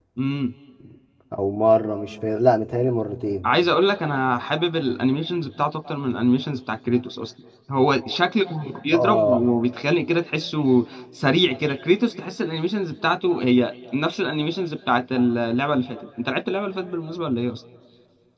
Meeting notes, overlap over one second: none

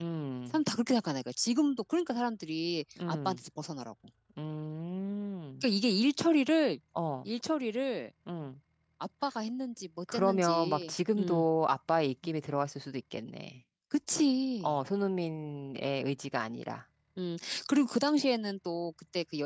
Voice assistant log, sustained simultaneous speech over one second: present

